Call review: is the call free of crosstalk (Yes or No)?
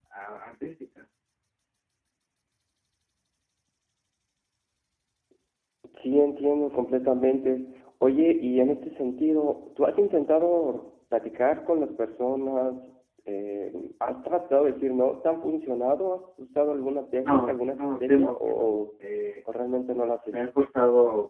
No